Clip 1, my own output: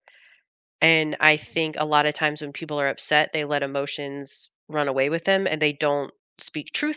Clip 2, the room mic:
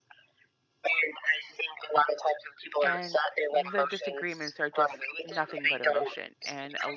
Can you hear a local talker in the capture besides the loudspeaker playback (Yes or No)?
Yes